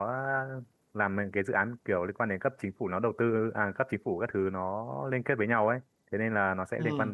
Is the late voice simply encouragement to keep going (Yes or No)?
Yes